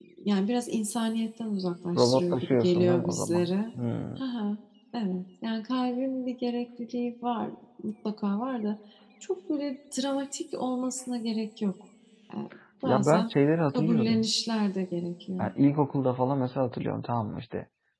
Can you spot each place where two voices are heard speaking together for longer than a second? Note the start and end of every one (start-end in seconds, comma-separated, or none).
1.9-3.5